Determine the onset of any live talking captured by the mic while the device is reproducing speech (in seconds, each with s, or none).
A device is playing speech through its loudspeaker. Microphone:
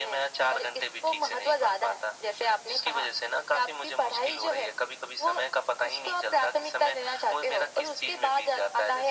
none